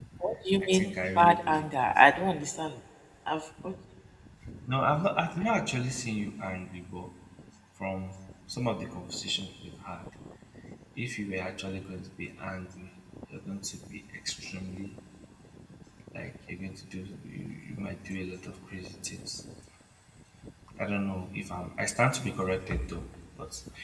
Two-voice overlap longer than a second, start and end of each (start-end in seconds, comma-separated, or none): 0.6-1.9